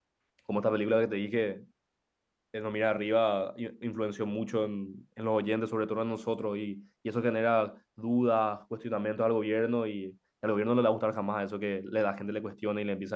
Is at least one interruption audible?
No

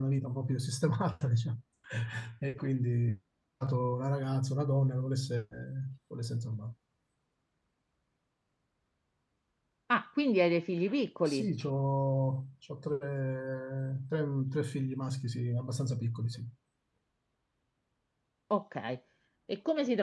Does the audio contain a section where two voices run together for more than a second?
No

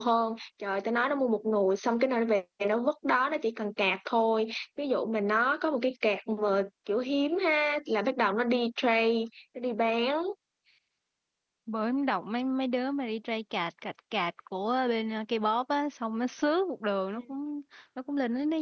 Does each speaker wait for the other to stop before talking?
Yes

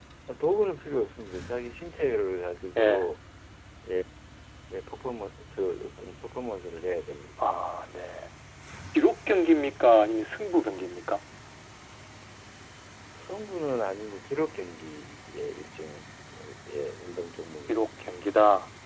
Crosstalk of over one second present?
No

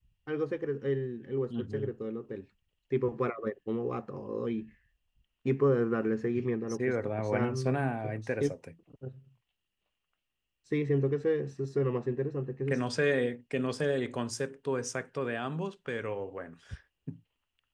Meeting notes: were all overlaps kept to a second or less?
No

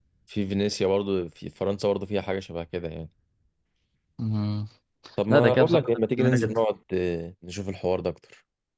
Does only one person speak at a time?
No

